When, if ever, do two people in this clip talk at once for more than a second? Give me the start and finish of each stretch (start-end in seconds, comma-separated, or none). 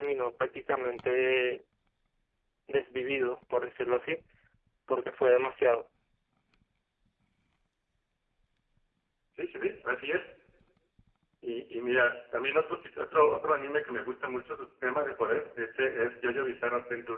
none